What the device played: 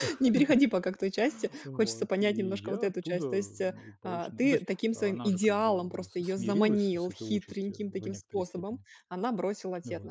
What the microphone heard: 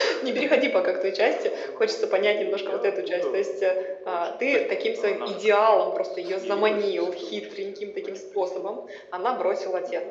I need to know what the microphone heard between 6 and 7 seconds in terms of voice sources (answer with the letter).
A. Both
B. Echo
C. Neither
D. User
B